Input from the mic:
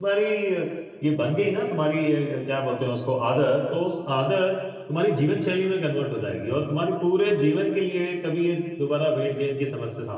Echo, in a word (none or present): none